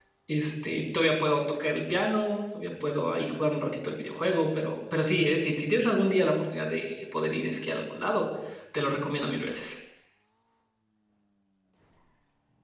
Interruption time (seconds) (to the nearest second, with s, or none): none